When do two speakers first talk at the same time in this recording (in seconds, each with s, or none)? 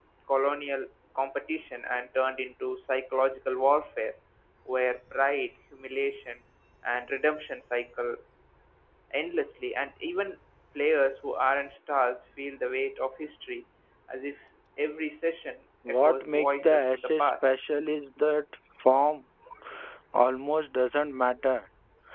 15.8 s